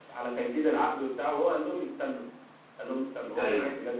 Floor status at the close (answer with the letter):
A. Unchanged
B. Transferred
A